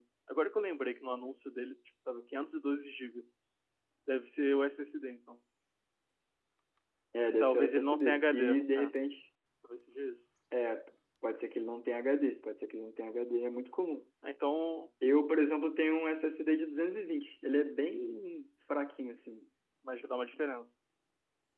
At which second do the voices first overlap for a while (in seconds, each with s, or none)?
7.4 s